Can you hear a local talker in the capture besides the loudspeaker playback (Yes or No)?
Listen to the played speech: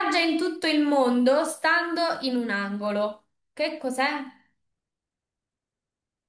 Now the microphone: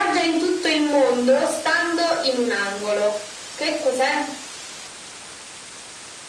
No